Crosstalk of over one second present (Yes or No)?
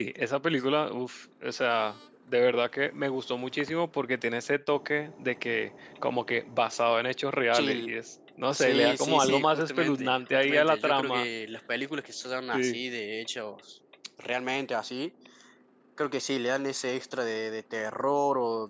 Yes